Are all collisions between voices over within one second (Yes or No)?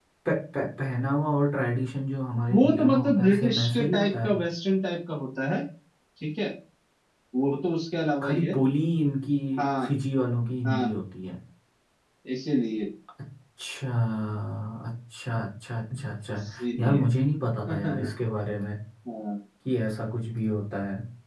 No